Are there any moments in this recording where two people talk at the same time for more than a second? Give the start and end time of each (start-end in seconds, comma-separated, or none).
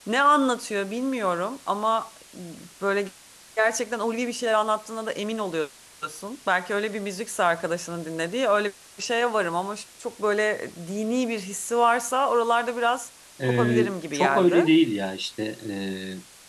13.4-14.7